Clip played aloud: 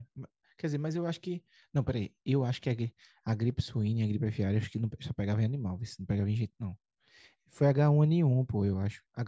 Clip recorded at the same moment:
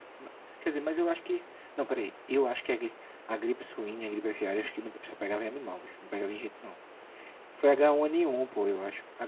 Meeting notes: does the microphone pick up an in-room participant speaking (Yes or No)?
No